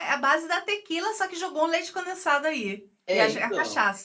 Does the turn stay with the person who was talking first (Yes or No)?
No